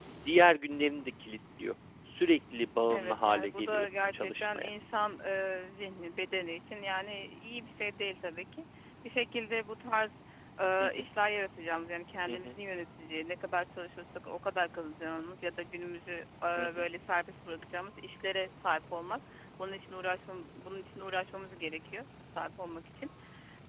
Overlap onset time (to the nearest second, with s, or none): 3 s